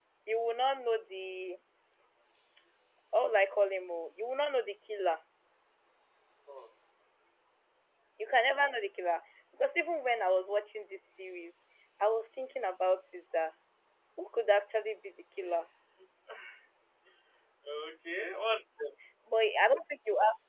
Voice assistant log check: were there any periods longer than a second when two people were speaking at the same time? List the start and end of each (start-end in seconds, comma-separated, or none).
none